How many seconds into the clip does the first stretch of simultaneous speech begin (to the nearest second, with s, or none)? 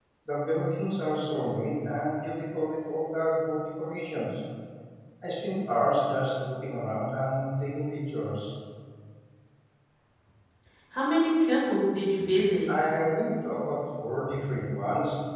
none